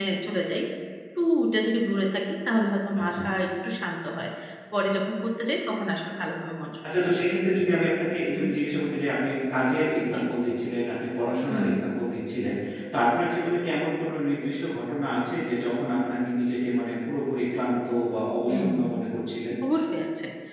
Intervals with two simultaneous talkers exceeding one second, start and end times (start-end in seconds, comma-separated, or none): none